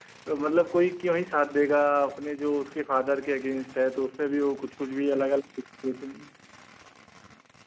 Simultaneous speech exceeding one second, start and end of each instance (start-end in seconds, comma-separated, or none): none